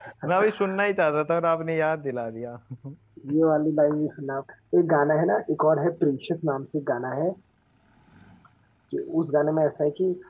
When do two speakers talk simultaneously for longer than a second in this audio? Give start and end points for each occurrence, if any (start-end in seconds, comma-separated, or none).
none